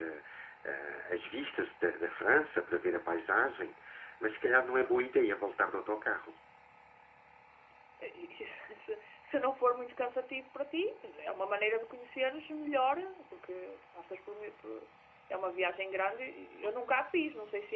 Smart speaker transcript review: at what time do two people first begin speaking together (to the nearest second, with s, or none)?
none